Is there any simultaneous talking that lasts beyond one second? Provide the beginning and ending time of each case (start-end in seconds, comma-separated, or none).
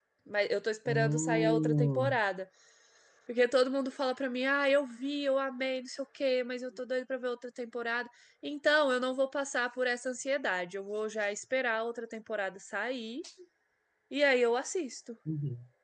0.9-2.2